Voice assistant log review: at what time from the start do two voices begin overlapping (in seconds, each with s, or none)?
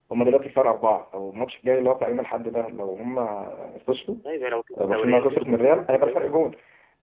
4.9 s